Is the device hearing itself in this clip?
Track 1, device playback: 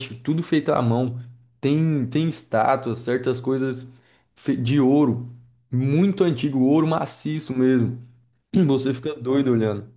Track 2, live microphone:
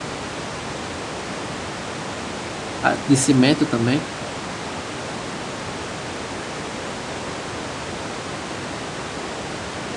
No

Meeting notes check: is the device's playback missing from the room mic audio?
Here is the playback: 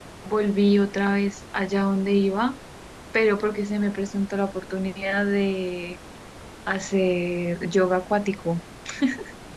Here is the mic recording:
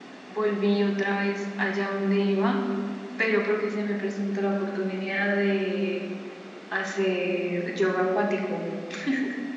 No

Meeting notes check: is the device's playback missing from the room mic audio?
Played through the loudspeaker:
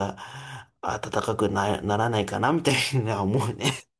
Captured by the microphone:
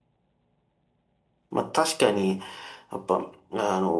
Yes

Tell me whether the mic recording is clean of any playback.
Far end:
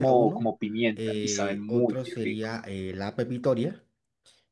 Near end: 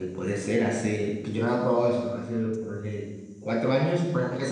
Yes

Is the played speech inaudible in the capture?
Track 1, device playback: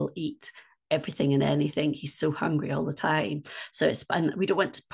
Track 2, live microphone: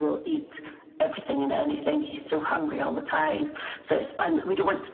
No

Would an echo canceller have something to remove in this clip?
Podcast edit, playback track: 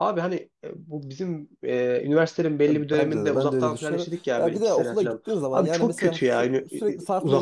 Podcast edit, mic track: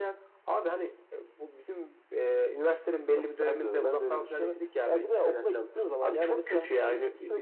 Yes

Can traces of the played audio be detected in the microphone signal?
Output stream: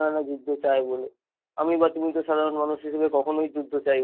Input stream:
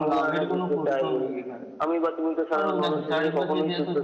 Yes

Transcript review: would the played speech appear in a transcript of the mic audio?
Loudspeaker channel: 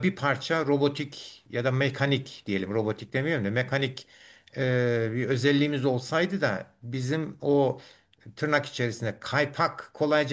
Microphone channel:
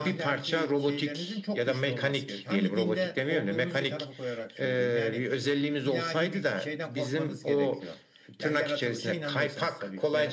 Yes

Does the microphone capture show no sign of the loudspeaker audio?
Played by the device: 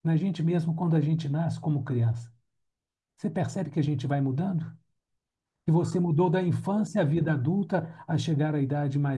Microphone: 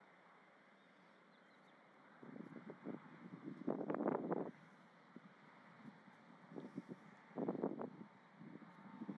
Yes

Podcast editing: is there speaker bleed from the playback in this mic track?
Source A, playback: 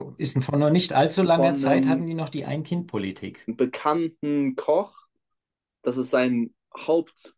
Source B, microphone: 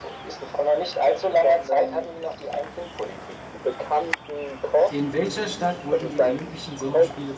Yes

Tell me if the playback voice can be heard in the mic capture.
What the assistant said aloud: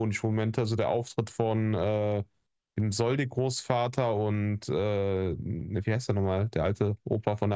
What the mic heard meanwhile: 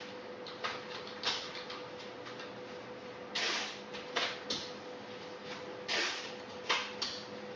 No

